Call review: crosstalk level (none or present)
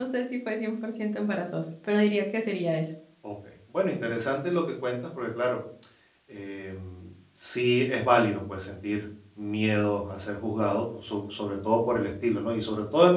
none